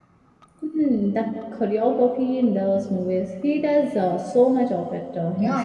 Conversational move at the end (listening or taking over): taking over